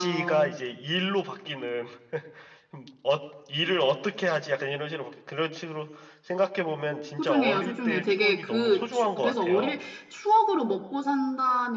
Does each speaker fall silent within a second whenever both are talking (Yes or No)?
No